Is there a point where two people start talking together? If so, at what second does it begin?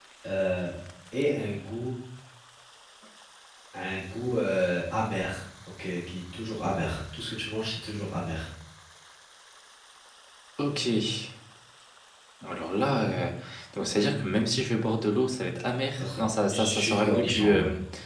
15.9 s

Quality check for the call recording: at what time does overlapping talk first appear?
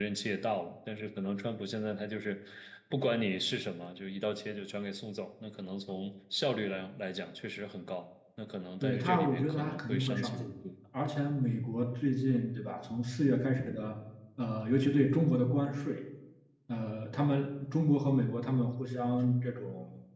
8.8 s

